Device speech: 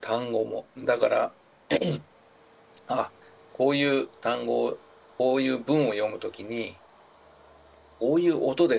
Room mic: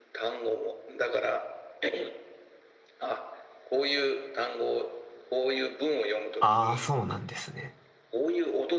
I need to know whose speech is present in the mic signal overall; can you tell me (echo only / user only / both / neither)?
both